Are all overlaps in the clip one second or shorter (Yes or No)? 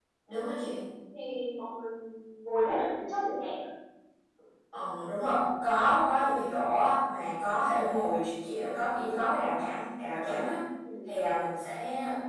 Yes